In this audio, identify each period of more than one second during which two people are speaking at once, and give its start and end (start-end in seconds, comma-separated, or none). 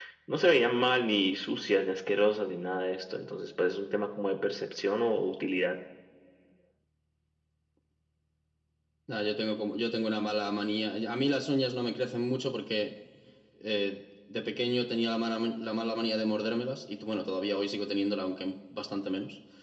none